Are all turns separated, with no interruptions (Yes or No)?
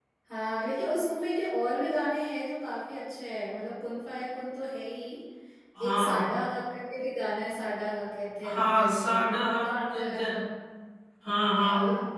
No